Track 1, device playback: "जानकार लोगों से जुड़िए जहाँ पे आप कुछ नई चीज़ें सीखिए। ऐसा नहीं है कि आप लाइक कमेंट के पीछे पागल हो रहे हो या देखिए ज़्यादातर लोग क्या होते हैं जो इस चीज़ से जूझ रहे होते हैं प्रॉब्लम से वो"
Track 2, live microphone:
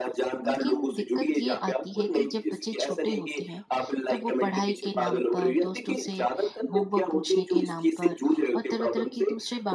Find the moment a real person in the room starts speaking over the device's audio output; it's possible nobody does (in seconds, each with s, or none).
0.5 s